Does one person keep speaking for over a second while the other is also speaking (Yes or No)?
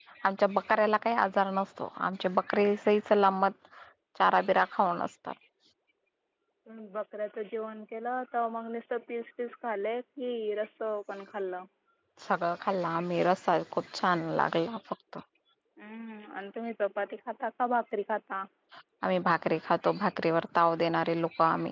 No